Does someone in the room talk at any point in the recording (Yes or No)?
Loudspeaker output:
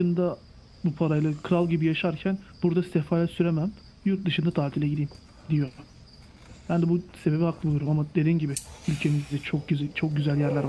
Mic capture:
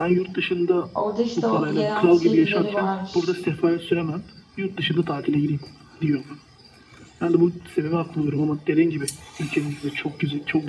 Yes